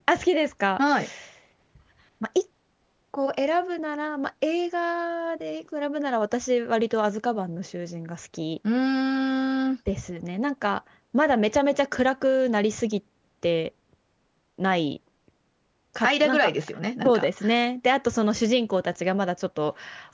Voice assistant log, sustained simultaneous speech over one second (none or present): none